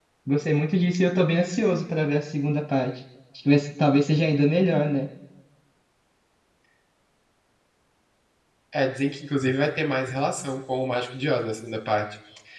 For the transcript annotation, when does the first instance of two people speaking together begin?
none

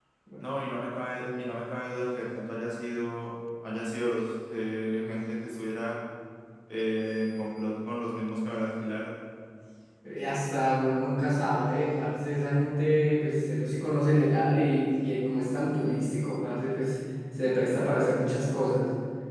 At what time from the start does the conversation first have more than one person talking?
none

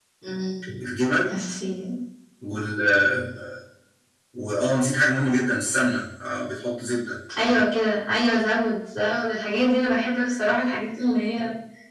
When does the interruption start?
none

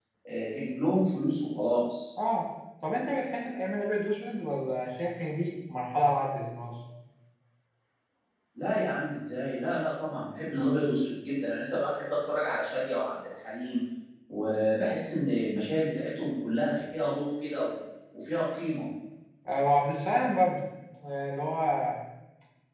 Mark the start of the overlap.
none

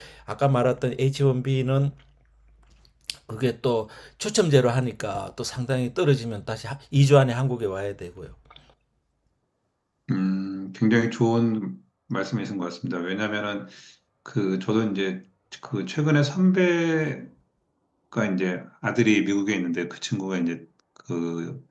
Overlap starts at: none

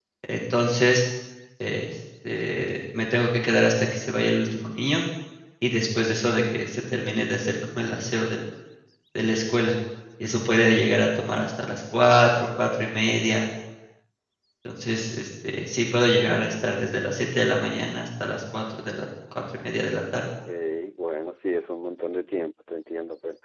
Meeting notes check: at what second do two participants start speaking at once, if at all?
none

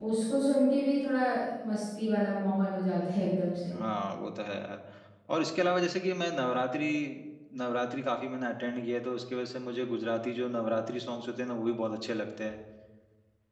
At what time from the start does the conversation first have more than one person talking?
none

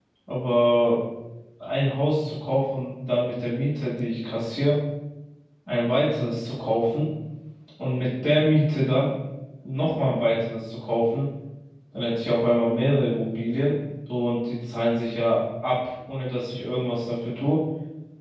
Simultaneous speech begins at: none

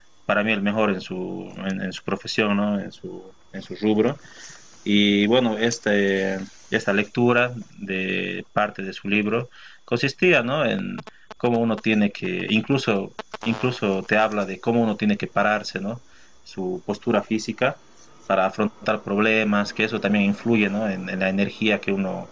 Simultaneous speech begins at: none

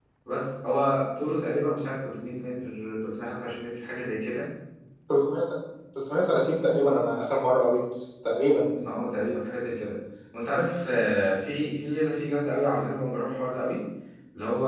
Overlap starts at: none

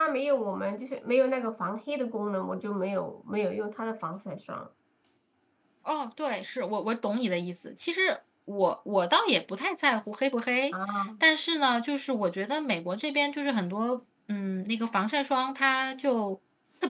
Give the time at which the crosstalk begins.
none

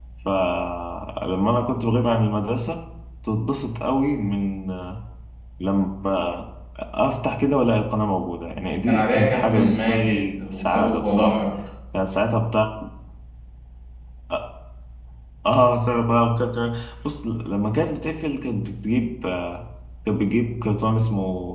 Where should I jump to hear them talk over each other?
8.9 s

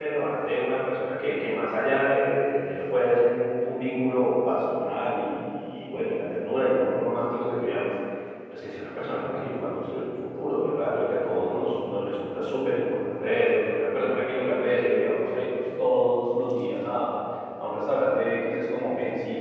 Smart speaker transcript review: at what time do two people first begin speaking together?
none

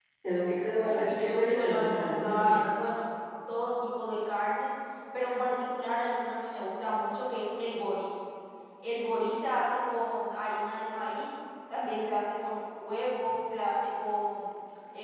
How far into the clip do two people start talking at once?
0.8 s

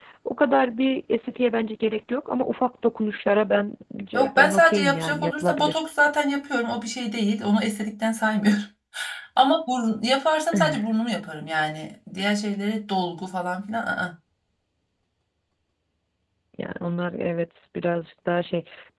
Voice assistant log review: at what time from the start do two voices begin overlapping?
4.1 s

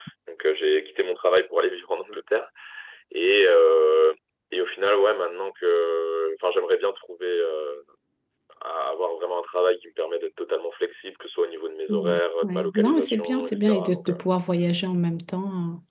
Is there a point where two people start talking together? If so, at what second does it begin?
11.9 s

